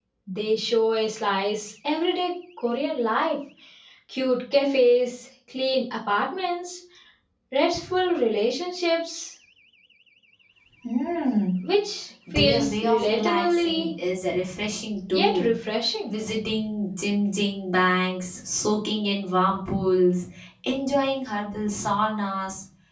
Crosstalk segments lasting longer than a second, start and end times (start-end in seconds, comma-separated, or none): 12.3-13.9